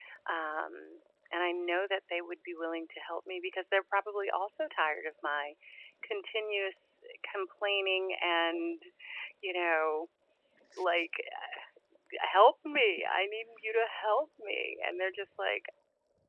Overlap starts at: none

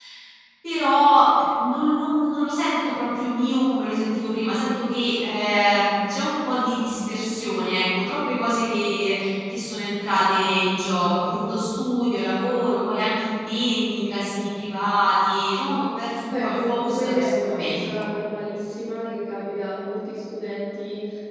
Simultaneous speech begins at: 16.3 s

